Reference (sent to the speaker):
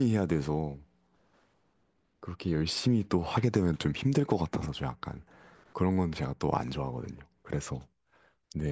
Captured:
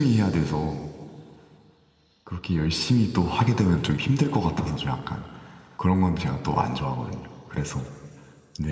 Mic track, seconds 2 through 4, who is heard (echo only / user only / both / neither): echo only